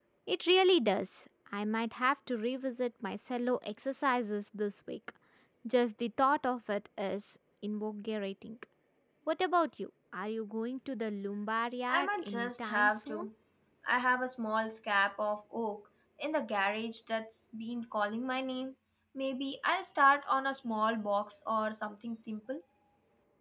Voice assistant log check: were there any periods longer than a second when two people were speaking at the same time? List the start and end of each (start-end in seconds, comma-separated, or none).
11.9-13.2